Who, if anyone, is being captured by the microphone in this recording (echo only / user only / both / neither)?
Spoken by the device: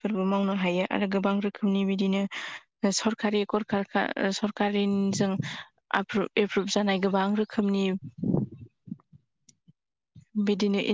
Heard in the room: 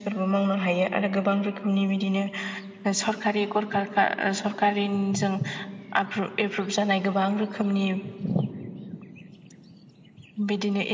echo only